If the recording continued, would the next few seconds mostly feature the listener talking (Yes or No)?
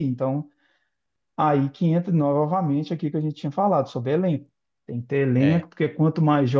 No